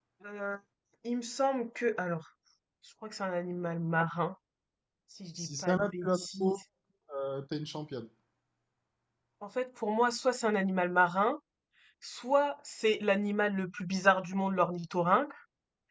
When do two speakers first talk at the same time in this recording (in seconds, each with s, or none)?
5.4 s